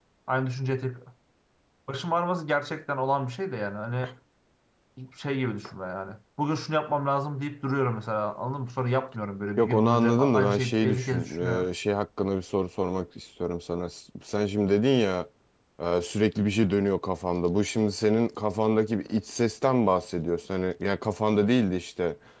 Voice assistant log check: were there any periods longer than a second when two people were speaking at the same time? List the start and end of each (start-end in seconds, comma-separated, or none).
9.6-11.7